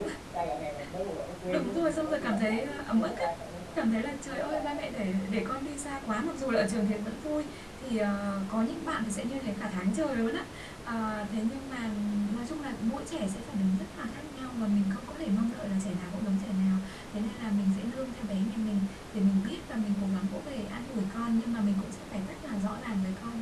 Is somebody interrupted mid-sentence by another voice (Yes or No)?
Yes